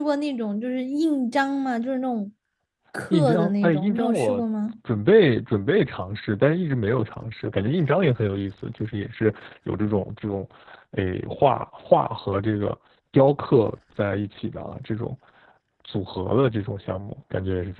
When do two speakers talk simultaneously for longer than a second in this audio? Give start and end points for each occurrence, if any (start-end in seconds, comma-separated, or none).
3.1-4.4